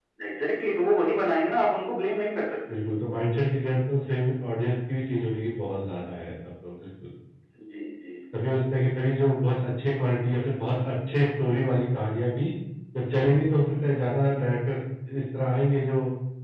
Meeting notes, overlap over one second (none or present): none